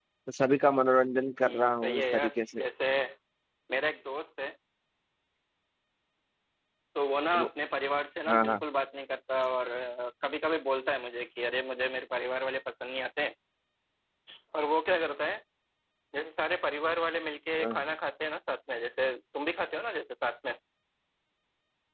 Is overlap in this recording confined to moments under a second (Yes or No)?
No